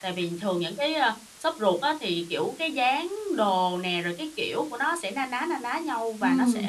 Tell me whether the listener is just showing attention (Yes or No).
No